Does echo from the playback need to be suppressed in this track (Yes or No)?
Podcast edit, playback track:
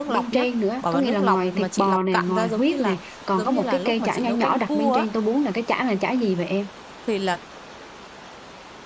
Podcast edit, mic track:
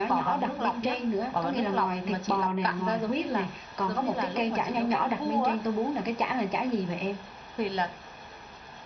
Yes